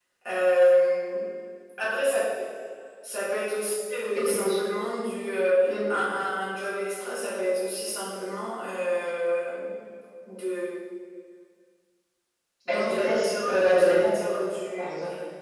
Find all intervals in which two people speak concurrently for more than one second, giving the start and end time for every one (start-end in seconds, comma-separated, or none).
12.7-14.1